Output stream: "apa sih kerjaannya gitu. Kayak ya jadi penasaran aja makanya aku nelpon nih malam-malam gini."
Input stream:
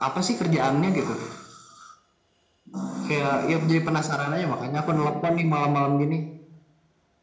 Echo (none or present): present